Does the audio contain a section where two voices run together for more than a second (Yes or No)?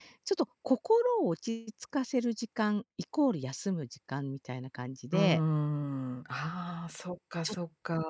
No